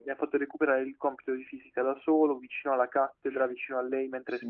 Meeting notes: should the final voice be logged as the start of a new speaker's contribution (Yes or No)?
No